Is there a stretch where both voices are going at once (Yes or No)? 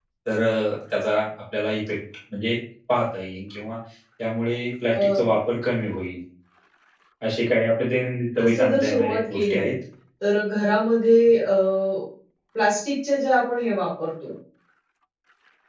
Yes